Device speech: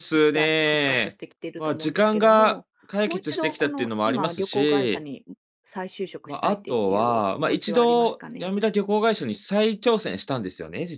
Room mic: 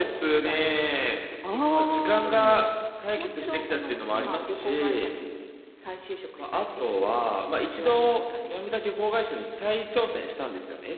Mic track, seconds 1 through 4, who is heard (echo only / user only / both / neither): both